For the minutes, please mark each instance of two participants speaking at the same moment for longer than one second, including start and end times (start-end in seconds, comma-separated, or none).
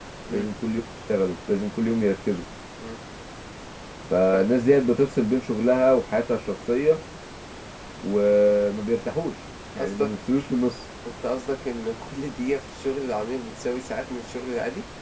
none